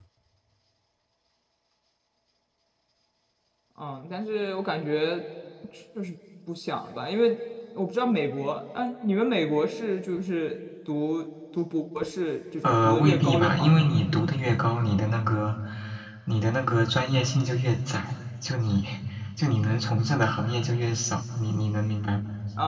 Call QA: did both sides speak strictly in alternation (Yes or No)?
No